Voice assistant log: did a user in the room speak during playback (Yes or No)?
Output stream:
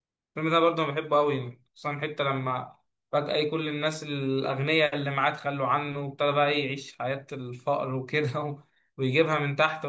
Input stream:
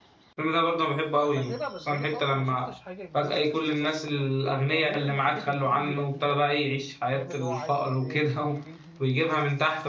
Yes